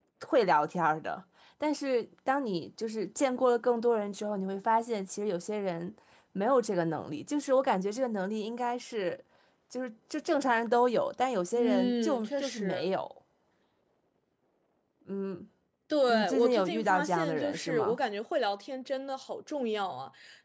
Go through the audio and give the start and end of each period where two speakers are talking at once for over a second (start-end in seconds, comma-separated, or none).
11.6-12.9, 16.1-18.0